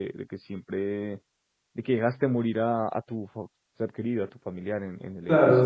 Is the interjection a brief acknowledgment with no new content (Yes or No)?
No